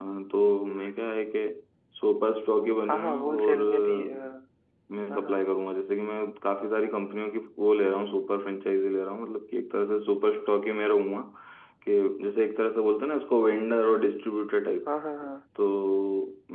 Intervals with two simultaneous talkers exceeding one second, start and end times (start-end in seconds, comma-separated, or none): 2.9-4.2